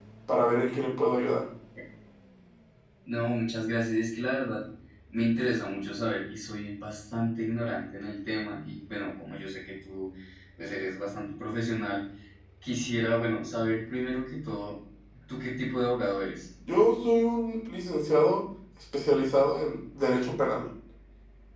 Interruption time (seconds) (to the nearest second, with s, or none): none